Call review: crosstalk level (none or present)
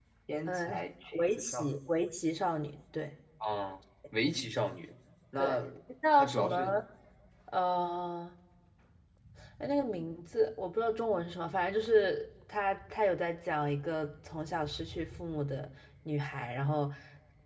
present